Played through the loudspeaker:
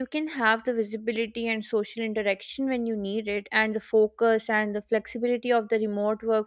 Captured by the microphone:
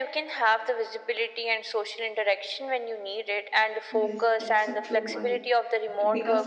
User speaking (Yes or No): Yes